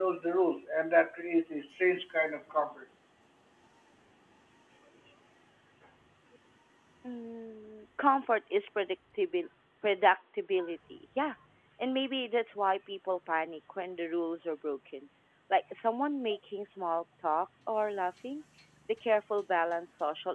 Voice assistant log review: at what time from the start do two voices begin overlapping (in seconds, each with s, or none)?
none